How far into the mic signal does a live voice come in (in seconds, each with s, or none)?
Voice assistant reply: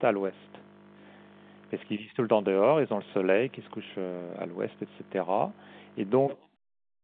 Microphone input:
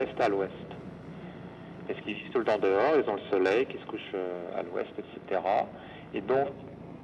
none